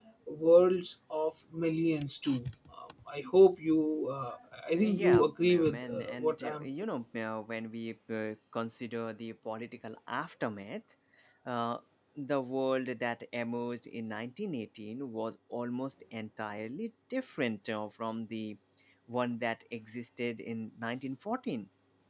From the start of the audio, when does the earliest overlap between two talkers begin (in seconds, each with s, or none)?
4.8 s